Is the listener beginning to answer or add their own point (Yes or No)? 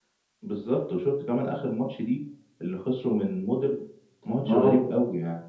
No